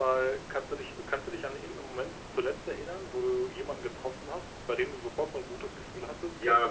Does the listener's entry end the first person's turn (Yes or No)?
Yes